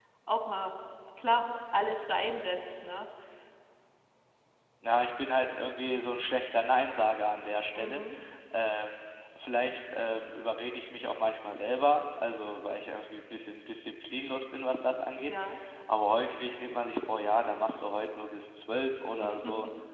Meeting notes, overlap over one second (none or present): none